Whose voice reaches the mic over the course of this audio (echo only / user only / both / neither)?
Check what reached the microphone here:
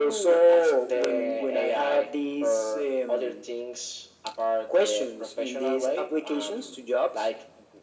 echo only